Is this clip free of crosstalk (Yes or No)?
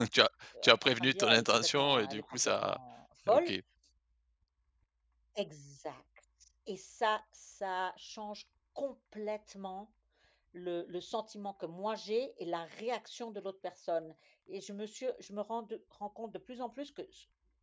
No